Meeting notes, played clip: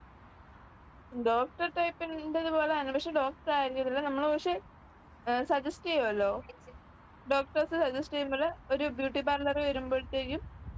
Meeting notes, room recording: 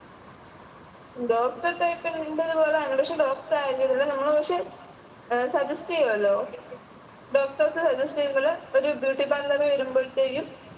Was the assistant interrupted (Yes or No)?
No